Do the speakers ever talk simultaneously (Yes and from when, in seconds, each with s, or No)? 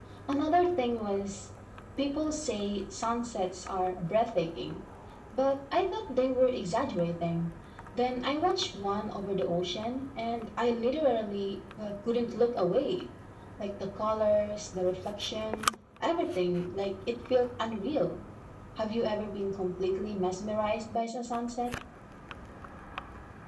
No